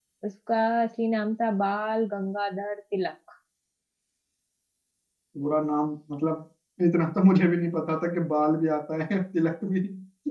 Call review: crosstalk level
none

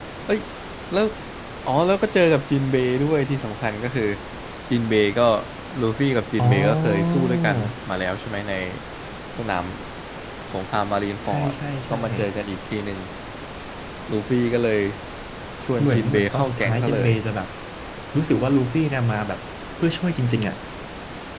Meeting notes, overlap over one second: present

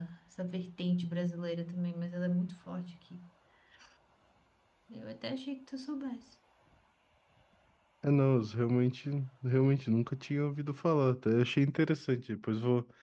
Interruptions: none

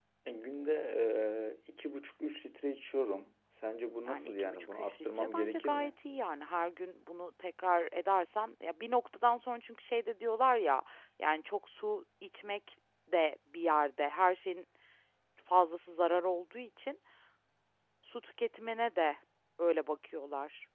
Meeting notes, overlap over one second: present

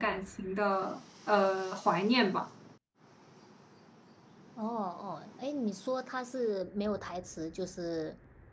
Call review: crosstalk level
none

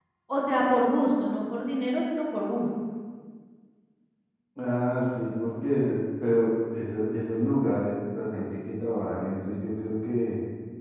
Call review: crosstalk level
none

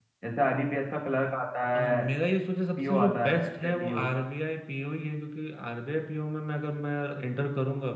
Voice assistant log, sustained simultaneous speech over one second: present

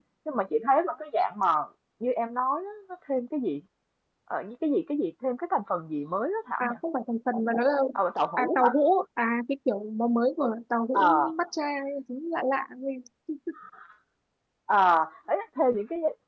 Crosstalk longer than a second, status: none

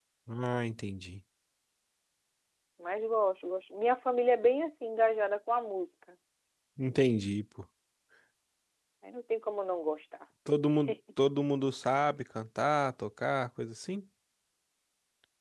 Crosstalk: none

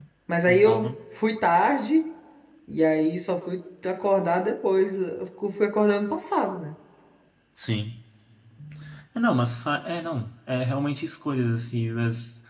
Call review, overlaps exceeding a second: none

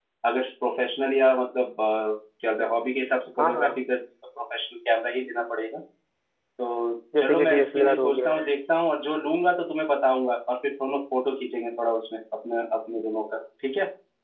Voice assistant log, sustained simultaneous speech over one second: present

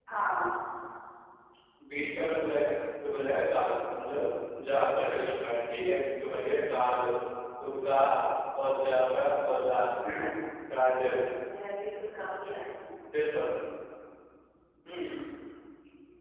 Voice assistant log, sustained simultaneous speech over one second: none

